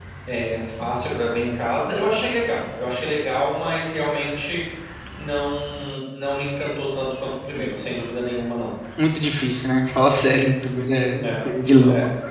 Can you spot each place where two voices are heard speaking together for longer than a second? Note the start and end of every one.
none

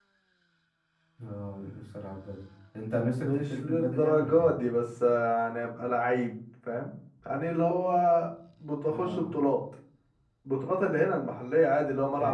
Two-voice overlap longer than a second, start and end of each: 3.2-4.5

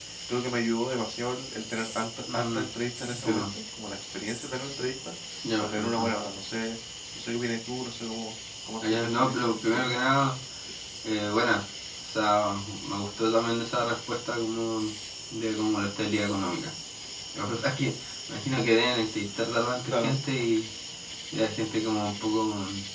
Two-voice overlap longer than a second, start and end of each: 8.8-10.0

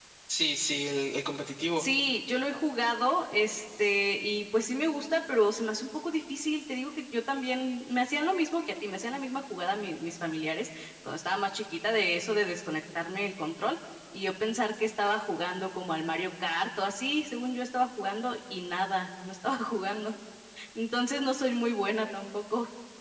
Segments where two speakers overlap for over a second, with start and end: none

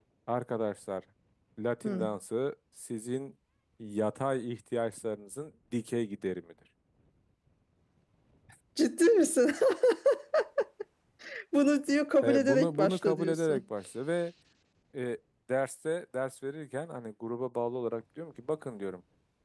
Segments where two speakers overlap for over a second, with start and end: 12.2-13.6

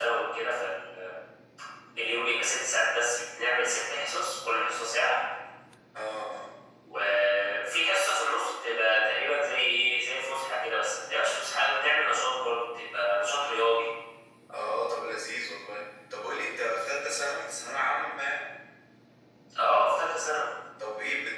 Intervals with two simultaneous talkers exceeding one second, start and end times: none

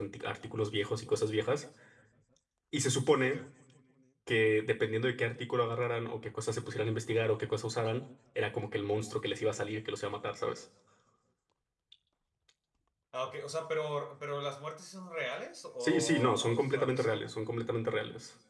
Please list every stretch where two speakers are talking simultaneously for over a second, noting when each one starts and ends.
15.8-17.2

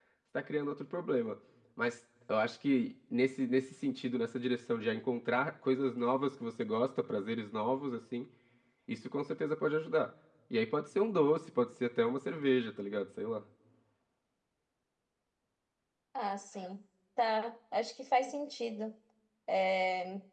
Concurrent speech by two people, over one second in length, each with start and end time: none

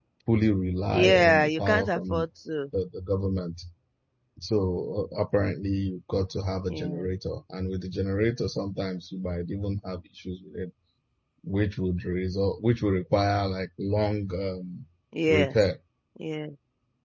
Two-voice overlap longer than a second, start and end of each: 0.9-2.2

